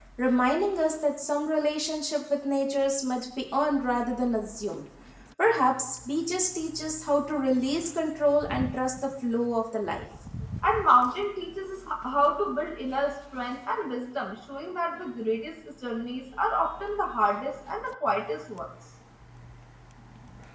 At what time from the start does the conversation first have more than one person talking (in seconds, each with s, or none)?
none